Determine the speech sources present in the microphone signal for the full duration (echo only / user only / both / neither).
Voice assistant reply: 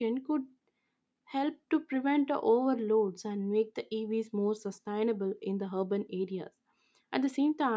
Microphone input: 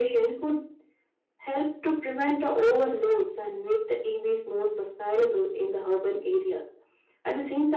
echo only